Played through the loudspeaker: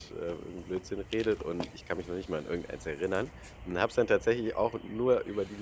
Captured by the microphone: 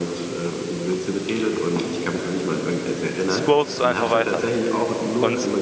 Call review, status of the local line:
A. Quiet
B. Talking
B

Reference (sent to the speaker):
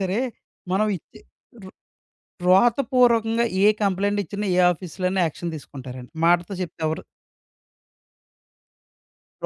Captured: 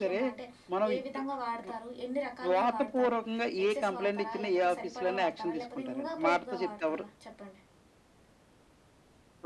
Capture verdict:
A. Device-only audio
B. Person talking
B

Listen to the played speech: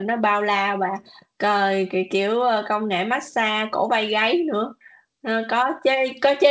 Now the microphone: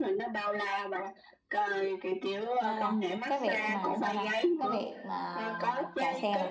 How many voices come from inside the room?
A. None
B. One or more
B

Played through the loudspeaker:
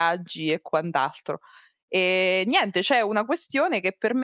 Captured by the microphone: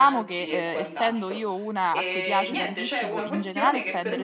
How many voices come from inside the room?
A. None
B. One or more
B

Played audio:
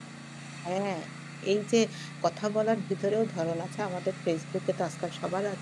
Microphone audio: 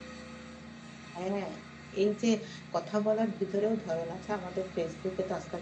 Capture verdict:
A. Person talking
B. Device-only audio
B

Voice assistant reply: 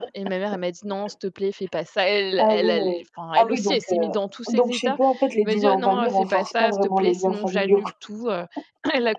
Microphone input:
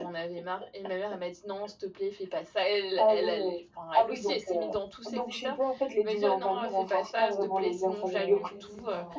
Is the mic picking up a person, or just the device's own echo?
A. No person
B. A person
B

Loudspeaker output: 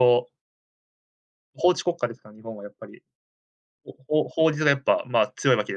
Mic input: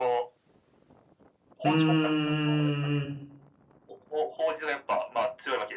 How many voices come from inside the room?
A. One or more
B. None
A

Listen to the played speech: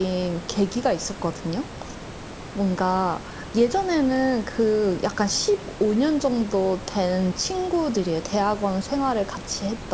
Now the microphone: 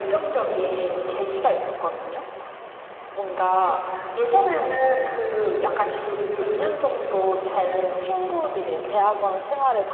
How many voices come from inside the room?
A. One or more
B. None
A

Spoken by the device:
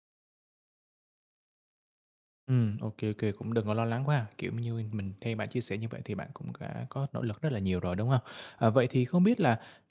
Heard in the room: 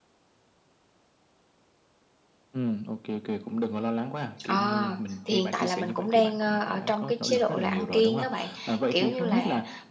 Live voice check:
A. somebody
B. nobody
A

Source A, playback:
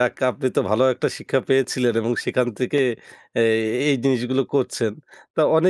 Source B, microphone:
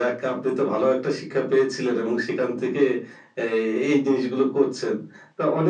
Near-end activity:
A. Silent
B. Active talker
A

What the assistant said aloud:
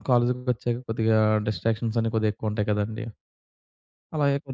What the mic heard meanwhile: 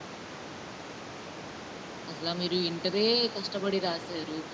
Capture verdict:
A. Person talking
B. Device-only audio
A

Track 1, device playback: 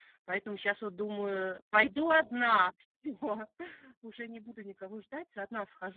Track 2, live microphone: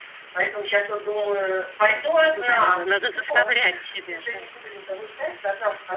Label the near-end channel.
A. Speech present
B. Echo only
A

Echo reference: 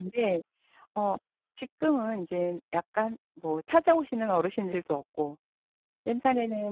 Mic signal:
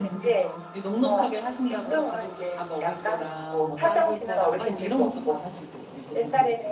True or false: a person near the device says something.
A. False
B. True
B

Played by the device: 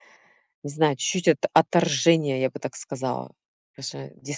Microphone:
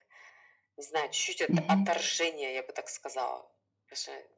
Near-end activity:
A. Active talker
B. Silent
A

